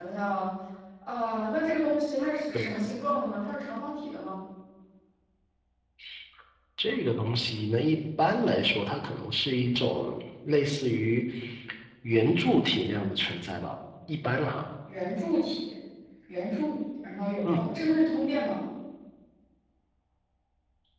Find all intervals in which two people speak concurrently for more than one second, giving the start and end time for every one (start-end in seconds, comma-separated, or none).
none